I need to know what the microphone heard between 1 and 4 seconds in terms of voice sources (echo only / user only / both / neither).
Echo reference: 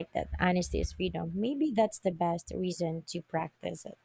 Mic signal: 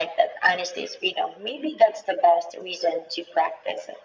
echo only